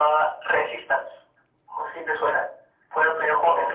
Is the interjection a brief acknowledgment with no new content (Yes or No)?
Yes